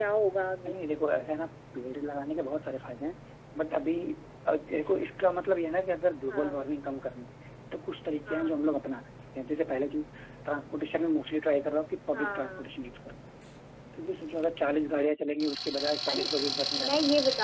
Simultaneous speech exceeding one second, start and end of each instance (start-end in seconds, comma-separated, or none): none